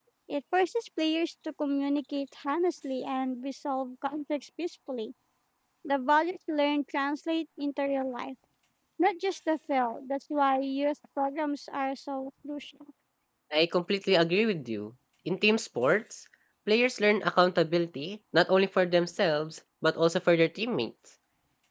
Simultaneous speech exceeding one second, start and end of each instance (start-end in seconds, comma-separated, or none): none